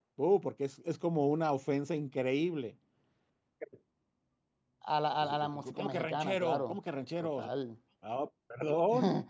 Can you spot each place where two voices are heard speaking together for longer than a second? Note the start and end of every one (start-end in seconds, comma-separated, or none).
5.2-6.7